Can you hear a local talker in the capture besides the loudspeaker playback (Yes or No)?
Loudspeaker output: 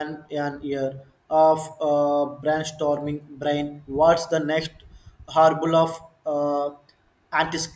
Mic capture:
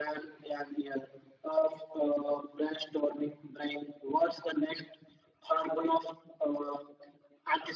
No